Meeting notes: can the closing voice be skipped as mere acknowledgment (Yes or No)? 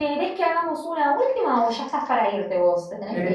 No